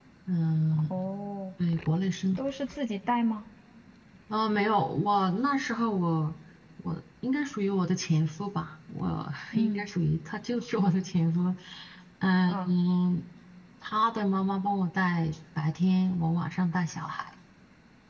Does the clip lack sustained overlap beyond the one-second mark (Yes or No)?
Yes